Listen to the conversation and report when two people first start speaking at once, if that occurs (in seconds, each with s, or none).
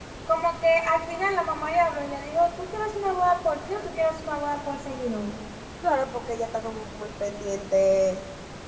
none